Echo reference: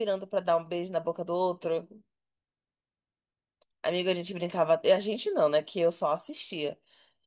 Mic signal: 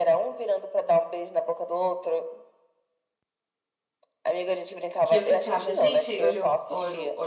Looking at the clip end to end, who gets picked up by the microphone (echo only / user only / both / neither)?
both